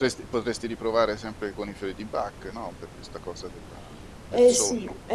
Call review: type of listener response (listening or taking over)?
taking over